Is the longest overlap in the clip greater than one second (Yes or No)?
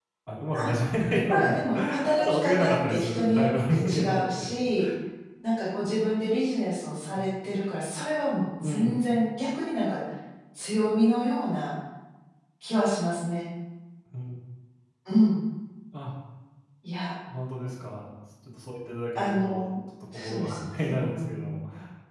Yes